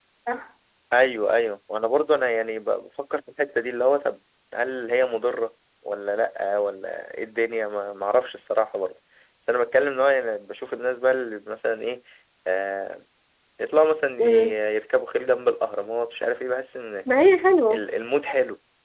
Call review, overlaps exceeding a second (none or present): none